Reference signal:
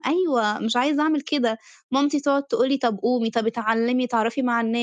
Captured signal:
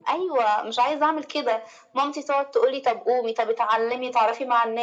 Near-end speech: none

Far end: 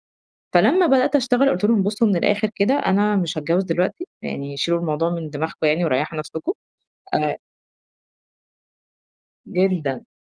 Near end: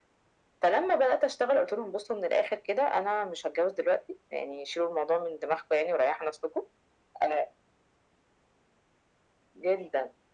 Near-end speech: none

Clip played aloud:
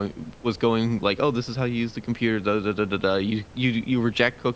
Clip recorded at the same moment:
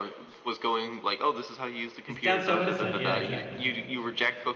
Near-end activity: present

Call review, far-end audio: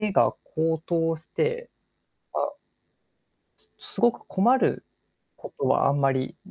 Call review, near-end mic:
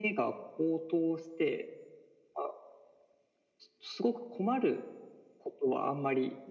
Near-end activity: none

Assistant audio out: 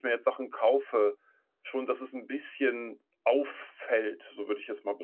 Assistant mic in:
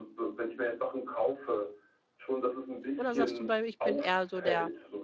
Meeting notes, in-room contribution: present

